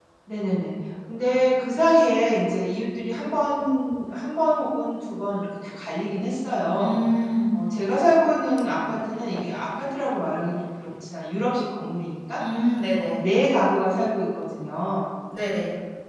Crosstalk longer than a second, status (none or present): none